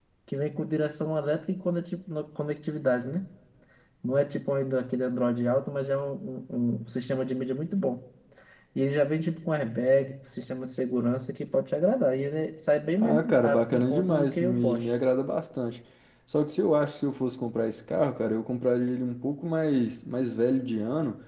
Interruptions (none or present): present